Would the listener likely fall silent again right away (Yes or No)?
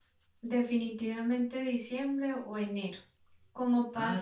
Yes